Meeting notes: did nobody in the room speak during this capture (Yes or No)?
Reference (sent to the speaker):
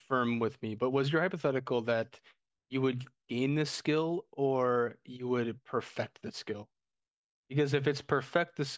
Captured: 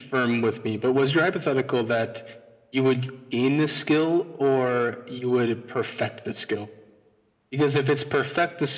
Yes